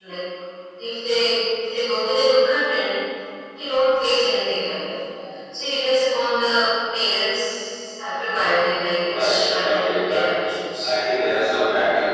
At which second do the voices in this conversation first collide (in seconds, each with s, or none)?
9.0 s